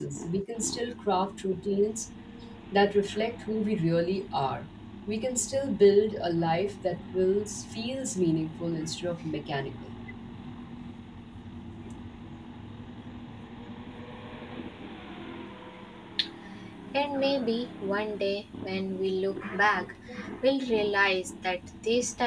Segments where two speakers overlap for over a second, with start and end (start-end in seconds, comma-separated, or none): none